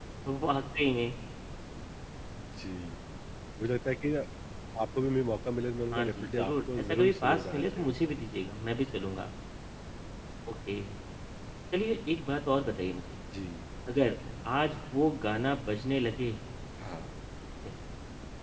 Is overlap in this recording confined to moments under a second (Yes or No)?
No